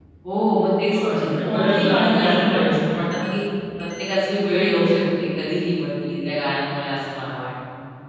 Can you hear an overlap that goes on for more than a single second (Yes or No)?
Yes